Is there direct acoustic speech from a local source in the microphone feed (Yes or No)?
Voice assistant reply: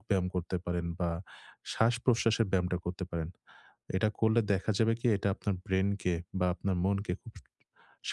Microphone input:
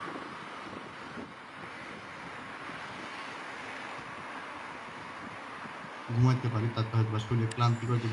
Yes